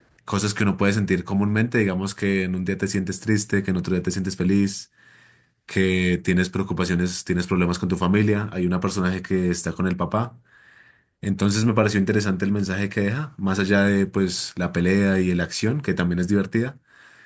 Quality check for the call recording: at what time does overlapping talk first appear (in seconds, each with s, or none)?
none